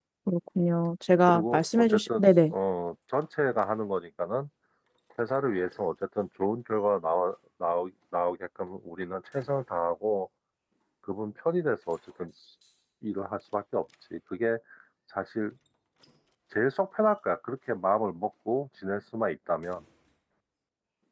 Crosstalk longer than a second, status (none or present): present